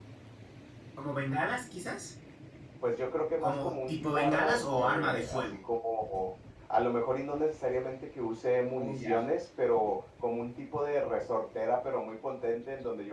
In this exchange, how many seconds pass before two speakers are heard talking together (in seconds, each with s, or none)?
3.4 s